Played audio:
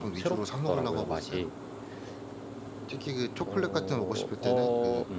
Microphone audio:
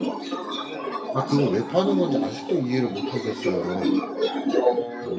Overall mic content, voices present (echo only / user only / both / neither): both